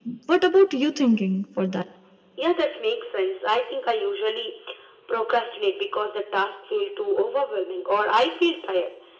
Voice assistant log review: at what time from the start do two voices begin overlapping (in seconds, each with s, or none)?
none